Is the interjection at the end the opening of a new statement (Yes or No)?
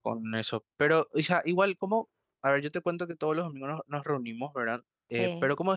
No